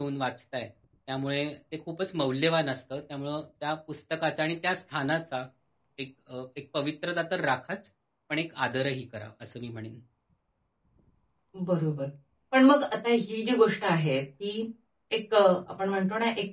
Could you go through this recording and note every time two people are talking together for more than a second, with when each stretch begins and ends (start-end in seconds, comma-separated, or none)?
none